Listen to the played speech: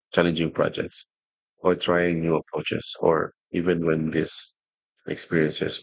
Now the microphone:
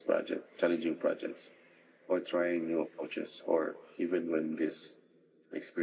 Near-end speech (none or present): none